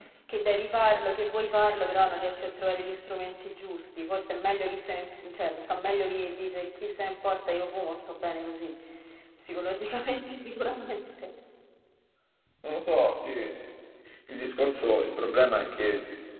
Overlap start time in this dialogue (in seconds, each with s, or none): none